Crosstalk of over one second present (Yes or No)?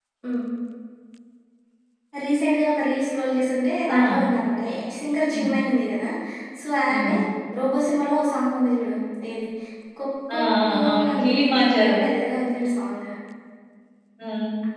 Yes